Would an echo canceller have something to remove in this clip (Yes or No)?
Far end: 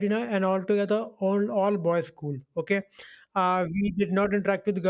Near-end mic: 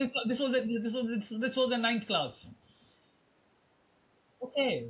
No